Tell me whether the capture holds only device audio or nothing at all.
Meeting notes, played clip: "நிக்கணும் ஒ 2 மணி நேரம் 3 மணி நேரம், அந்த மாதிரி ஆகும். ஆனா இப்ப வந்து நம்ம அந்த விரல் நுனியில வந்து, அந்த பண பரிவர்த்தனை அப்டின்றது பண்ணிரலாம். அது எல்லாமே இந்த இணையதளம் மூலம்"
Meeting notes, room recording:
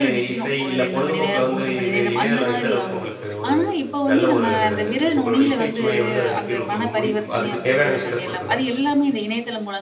No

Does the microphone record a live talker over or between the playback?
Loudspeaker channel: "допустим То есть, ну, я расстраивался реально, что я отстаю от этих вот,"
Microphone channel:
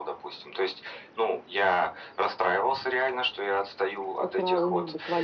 Yes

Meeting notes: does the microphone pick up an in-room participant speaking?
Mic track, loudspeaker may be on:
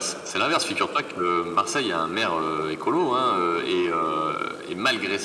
No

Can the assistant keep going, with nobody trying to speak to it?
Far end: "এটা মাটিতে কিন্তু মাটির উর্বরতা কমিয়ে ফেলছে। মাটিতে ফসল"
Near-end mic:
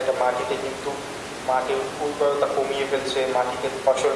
Yes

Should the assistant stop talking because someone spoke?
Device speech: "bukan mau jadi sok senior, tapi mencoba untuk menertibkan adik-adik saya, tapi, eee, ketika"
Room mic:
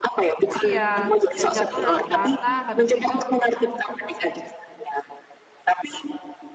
Yes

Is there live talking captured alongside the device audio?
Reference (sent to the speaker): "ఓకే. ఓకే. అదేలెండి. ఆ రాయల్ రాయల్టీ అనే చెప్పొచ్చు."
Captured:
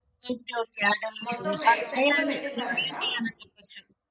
Yes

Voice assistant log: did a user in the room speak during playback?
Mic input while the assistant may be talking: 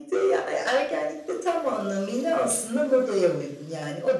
No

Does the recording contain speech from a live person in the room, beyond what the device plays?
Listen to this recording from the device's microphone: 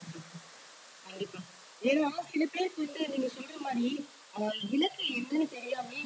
No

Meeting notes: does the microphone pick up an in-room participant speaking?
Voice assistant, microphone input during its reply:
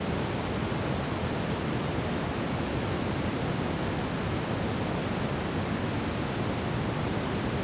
No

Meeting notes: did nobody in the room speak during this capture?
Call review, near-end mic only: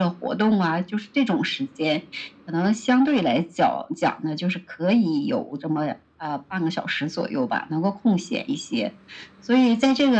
Yes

